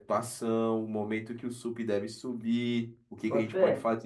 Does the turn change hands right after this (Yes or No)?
No